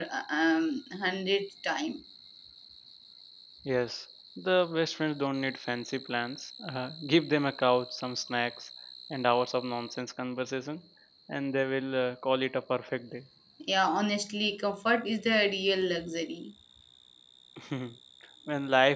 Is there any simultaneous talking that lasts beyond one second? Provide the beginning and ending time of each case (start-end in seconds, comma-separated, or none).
none